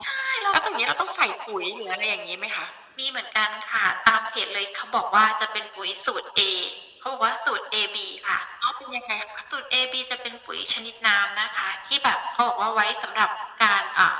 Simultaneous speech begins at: none

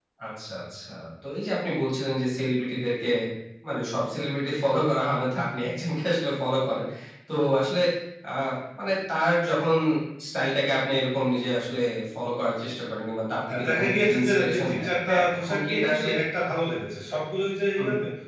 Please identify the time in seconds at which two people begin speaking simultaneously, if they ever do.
13.5 s

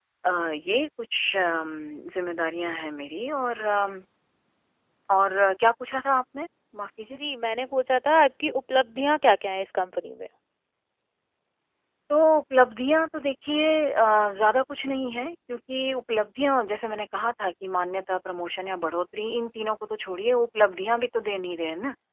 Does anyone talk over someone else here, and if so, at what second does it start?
none

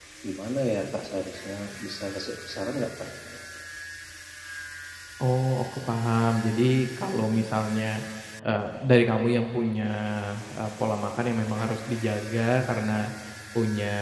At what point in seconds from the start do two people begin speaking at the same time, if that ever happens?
none

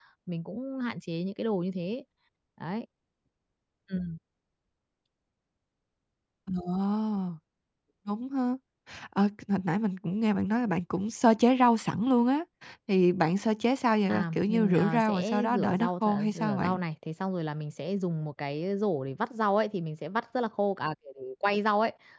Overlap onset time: 14.1 s

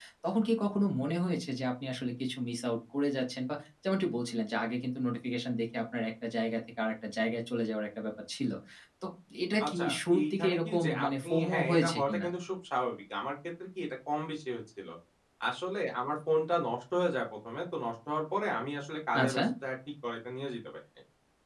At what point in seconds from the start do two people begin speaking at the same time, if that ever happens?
9.6 s

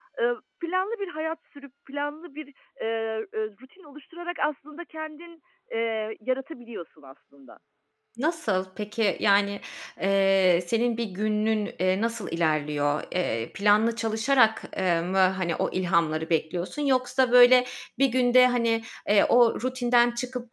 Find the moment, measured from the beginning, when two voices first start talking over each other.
none

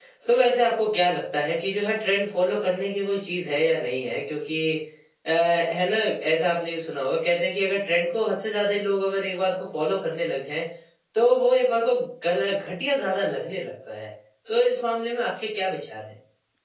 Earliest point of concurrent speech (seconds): none

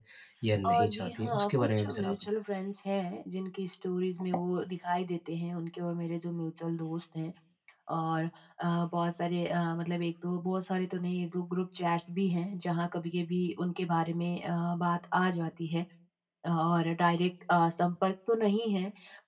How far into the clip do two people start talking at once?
0.7 s

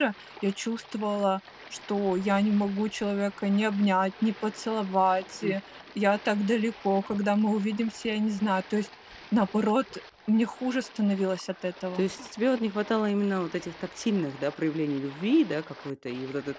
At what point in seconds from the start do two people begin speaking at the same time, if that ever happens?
none

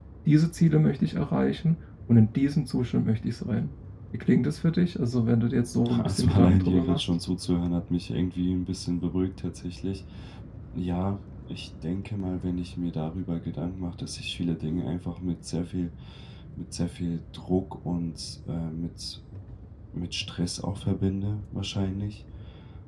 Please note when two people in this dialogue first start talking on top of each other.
5.8 s

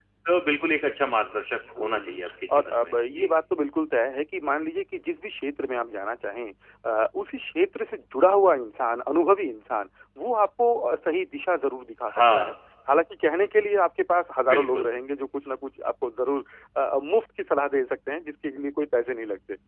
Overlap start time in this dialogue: 1.8 s

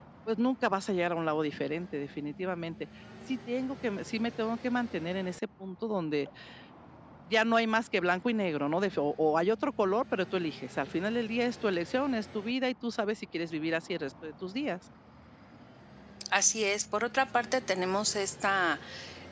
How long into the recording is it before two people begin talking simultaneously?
none

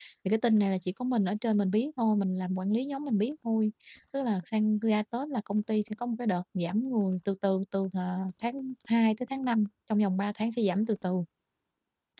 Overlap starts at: none

